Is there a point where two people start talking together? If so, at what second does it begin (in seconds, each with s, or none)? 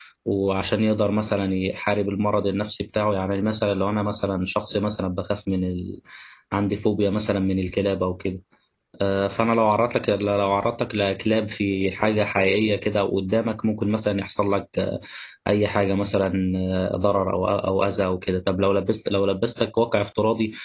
none